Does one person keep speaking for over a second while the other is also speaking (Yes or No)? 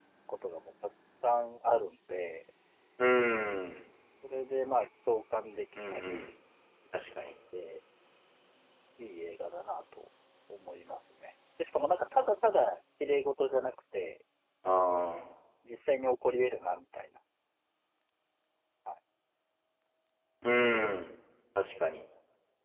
No